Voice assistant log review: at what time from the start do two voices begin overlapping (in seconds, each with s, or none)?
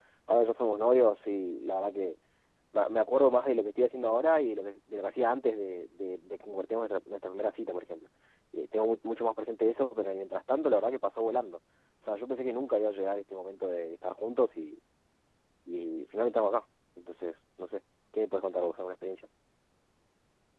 none